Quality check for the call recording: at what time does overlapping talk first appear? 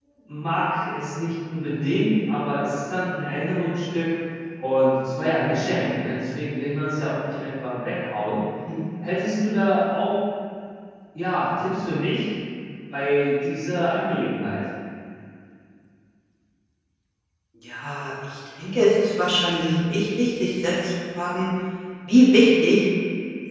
none

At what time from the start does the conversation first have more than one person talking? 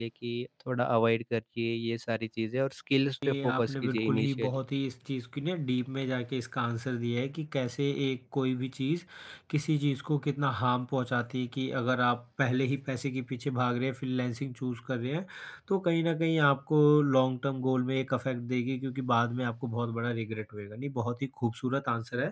3.2 s

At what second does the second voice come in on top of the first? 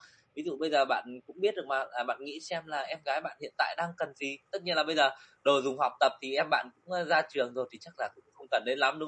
none

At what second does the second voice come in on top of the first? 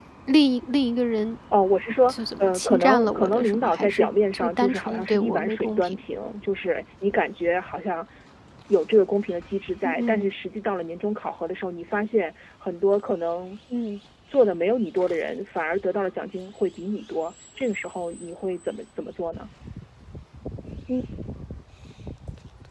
2.1 s

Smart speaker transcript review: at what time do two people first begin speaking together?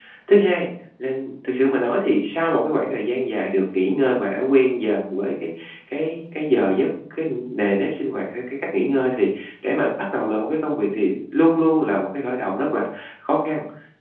none

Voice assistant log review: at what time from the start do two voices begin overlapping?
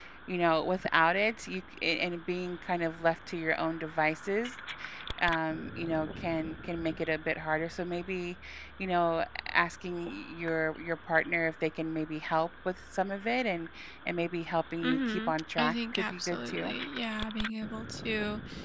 14.8 s

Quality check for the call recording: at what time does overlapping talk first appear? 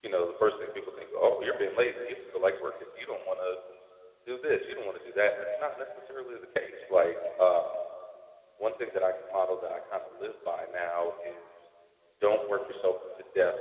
none

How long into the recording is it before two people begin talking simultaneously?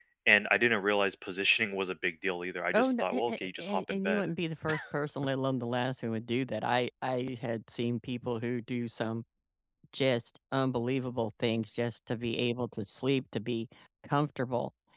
2.7 s

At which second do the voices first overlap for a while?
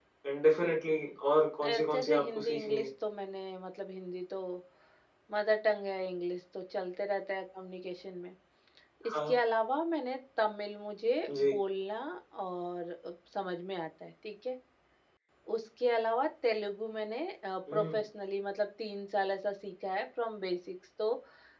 1.6 s

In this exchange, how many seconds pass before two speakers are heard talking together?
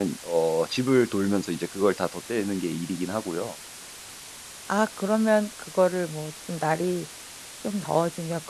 none

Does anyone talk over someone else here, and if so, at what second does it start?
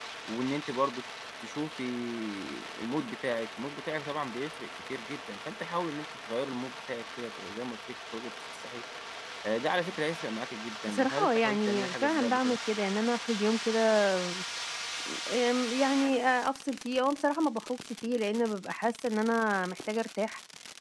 10.9 s

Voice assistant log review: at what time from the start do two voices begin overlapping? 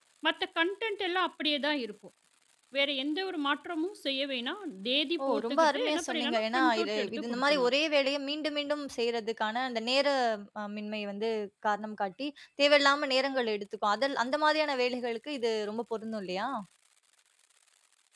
5.2 s

